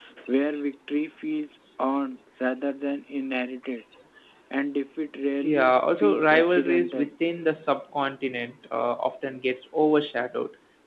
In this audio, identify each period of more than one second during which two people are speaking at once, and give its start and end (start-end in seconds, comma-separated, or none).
5.4-7.0